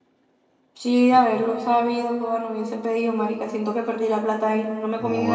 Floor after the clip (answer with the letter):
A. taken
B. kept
A